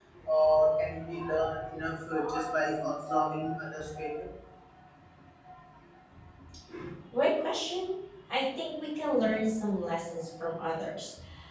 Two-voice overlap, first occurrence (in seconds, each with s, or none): none